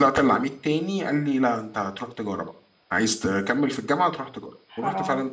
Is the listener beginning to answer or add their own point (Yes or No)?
No